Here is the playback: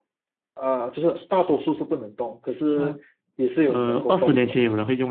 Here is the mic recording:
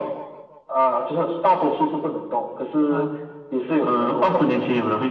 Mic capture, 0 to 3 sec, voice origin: echo only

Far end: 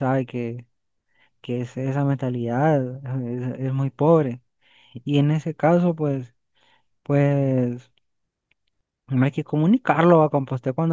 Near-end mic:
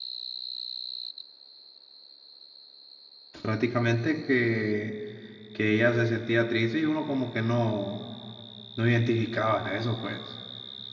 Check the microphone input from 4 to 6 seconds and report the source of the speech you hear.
user only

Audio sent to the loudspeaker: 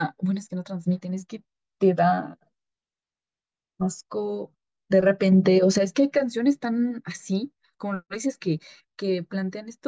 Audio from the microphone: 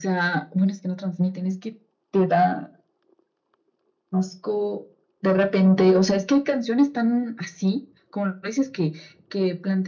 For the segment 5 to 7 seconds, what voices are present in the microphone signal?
echo only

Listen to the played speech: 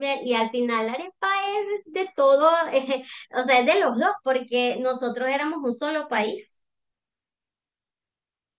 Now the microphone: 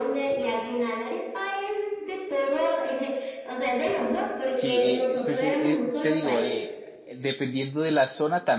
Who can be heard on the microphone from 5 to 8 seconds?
both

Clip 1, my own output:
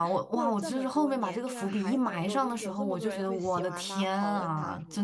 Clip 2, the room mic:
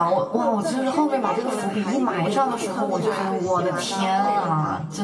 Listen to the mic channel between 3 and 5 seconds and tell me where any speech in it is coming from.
both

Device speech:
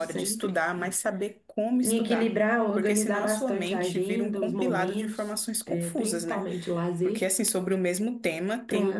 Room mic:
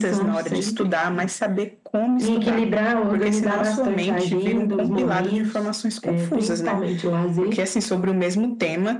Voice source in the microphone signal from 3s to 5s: echo only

